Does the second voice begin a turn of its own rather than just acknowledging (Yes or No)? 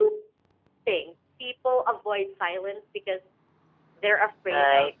Yes